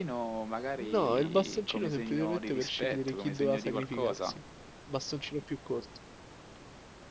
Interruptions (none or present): present